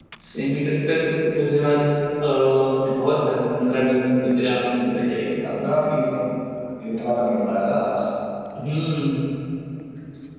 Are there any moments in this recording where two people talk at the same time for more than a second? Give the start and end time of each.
none

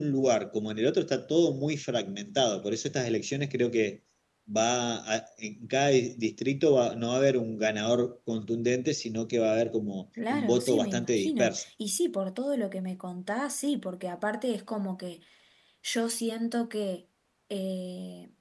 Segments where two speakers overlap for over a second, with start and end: 10.3-11.5

